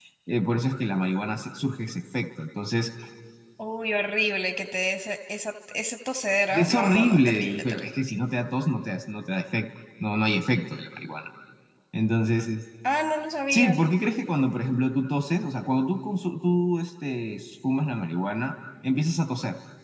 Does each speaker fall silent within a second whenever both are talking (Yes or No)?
No